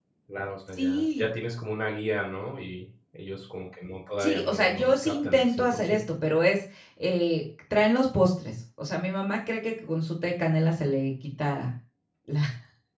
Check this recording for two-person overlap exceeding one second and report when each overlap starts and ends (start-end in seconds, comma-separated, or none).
4.2-6.0